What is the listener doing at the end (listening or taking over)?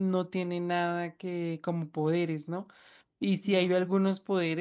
listening